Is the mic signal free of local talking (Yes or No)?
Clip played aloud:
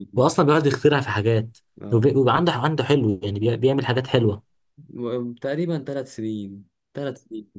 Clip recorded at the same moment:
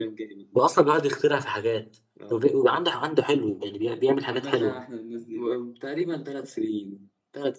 No